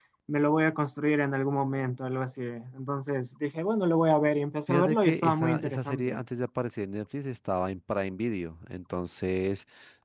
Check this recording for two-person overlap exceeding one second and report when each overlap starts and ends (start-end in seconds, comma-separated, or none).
4.7-6.2